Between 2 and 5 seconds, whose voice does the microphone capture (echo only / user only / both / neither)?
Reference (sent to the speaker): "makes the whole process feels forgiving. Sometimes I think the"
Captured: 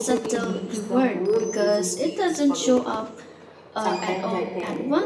both